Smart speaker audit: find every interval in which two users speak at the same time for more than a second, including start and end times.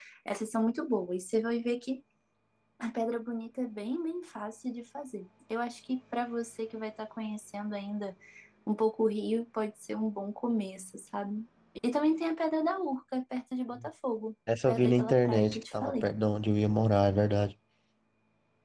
14.7-16.1

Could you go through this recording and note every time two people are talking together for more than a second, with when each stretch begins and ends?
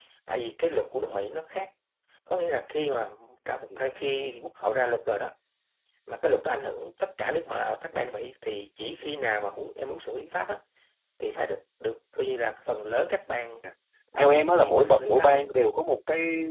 14.2-15.5

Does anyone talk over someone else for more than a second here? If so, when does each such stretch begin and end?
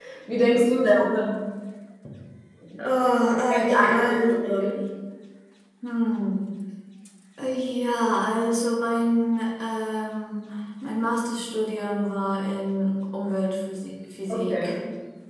3.5-4.7

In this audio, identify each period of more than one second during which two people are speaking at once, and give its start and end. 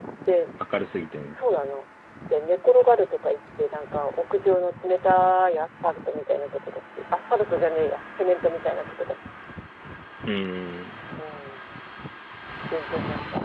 none

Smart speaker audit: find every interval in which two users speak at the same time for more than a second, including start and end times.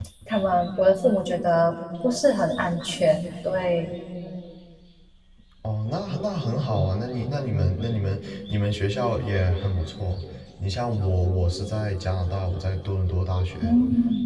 none

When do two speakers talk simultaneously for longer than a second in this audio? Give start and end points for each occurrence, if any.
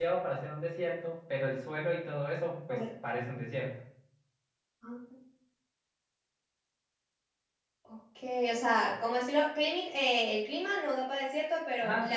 none

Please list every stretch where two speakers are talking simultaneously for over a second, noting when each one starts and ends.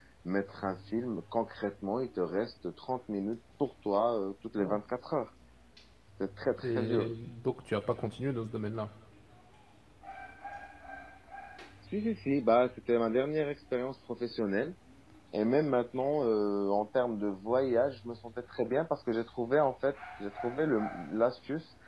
none

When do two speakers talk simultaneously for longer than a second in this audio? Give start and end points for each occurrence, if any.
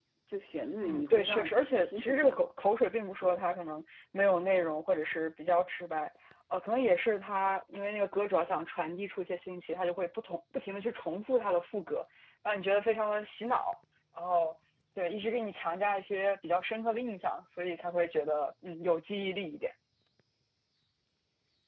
0.8-2.5

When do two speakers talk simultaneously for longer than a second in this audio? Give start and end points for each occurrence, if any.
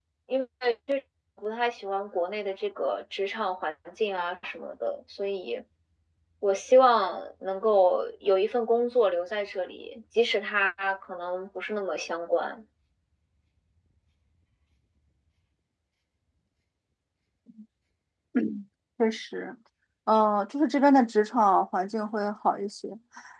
none

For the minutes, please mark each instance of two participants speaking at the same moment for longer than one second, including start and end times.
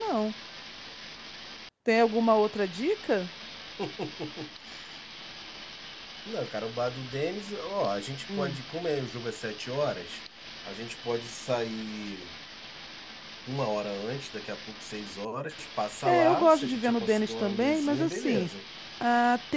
16.1-18.5

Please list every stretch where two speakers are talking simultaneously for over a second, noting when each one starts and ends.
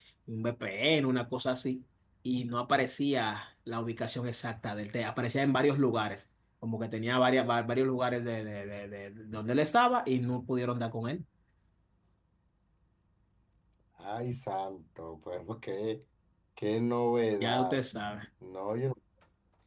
none

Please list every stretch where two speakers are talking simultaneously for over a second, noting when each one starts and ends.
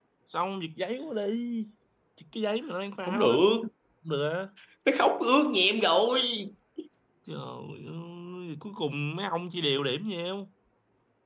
none

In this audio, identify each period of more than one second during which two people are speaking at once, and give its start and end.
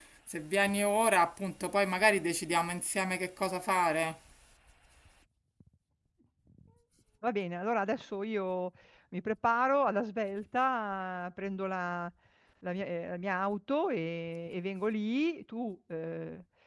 none

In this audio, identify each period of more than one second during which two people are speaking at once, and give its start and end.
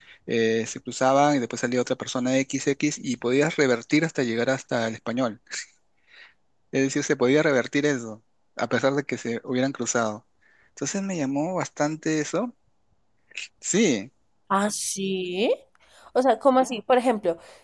none

